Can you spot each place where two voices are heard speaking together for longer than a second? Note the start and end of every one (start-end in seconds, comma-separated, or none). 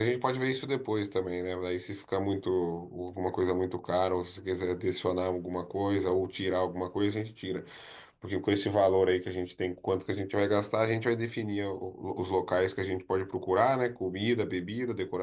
none